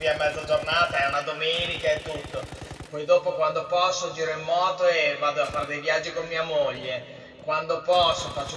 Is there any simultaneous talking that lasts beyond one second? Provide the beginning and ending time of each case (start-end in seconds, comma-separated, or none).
none